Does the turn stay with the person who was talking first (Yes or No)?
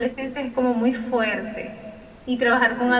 Yes